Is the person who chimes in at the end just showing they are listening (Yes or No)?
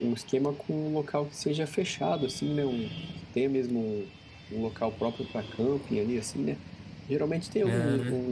Yes